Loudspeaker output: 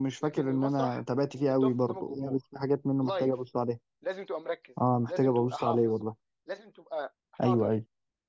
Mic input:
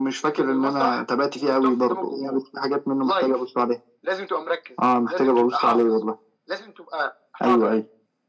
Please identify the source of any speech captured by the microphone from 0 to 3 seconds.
echo only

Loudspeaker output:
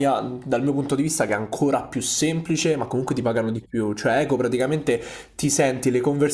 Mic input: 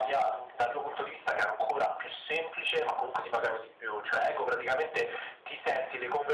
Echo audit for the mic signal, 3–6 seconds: echo only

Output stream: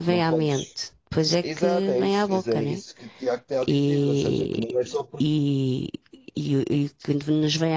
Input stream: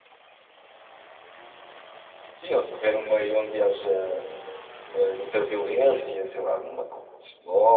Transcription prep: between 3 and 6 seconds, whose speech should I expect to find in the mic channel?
user only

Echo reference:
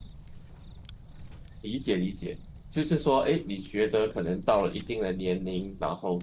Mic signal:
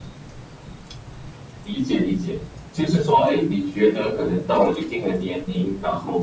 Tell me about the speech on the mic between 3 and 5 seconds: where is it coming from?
echo only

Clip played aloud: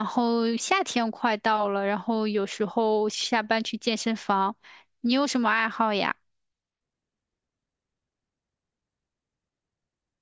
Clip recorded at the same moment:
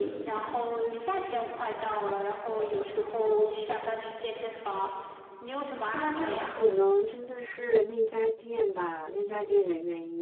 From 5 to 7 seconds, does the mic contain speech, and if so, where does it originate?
both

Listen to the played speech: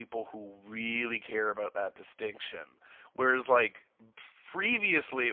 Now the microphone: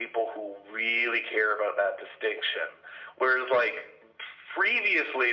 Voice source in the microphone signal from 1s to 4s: echo only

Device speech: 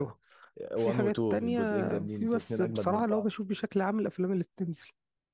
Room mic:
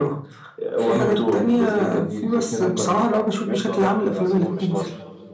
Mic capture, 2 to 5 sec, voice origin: both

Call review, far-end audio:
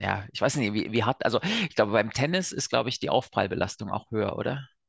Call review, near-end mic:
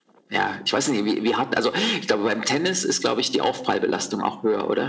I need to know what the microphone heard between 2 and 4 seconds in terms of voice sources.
echo only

